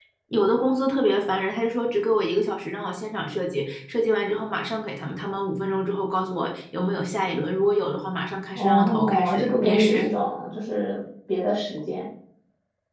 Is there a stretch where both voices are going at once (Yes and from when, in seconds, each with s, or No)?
Yes, from 8.6 s